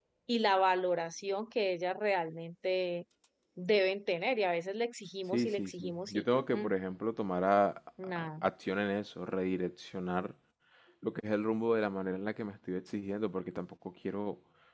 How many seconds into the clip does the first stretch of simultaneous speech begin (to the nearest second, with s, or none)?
5 s